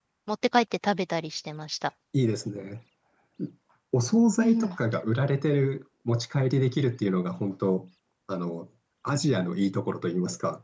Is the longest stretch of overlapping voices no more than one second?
Yes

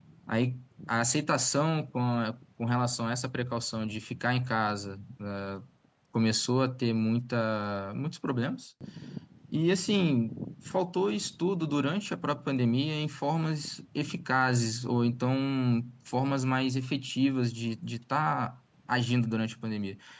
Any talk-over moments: No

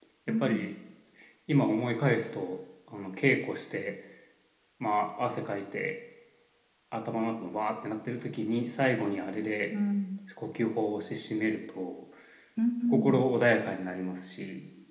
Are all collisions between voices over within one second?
Yes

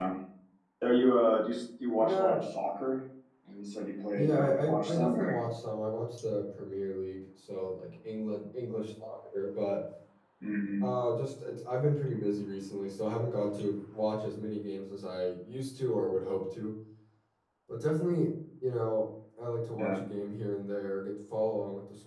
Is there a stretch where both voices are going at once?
Yes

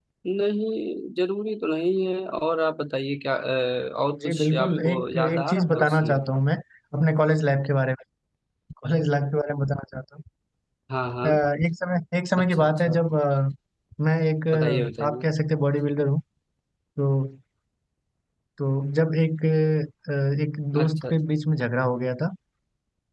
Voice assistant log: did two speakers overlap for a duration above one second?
Yes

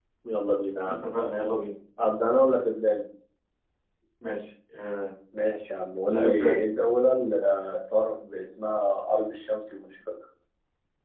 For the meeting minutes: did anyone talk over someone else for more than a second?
No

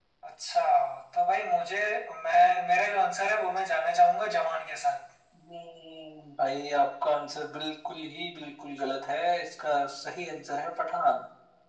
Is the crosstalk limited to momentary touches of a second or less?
Yes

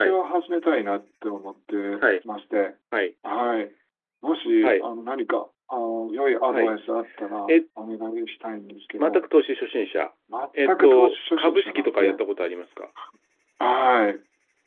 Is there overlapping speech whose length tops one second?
Yes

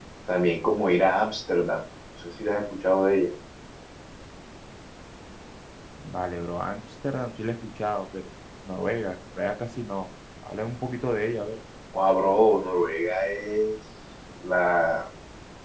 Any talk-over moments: No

